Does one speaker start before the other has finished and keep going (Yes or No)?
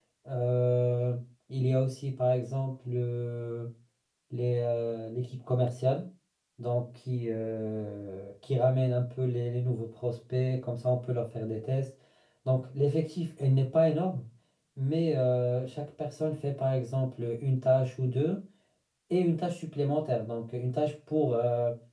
No